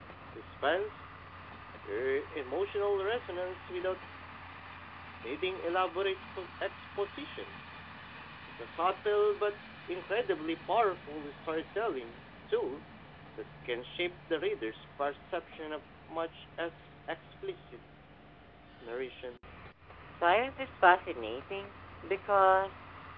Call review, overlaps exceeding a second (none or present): none